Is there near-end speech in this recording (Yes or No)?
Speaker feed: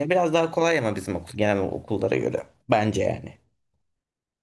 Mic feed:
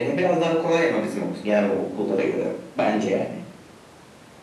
No